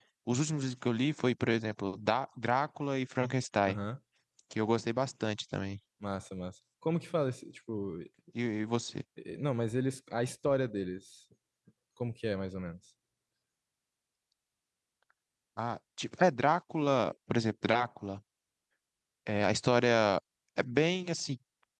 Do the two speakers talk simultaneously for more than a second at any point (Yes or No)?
No